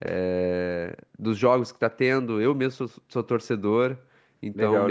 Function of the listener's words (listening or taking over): taking over